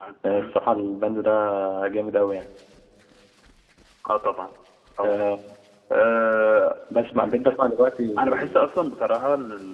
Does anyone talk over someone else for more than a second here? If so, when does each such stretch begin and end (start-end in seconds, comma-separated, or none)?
none